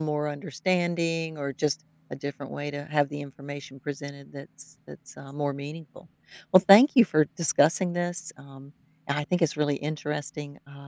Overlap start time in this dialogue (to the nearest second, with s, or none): none